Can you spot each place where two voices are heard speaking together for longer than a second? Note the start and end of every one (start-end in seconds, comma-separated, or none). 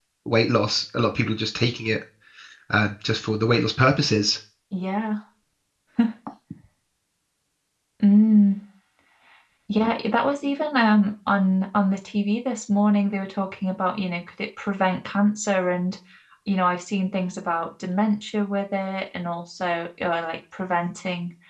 none